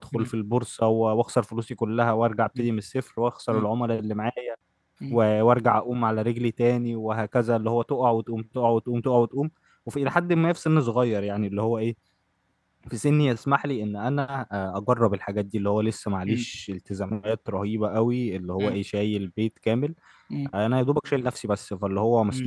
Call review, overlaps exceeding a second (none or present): none